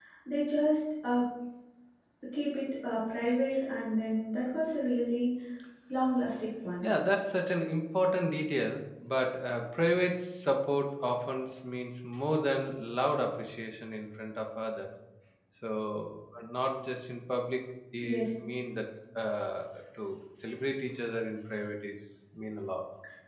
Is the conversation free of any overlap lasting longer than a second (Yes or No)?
Yes